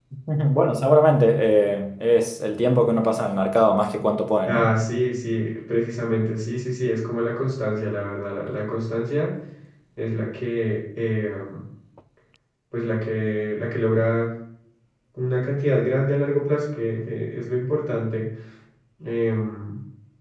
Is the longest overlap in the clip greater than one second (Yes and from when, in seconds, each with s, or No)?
No